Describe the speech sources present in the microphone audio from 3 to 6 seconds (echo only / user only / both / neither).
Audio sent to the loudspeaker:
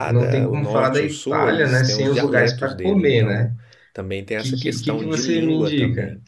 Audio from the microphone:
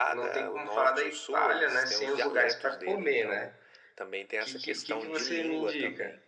echo only